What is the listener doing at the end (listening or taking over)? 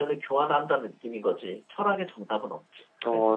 taking over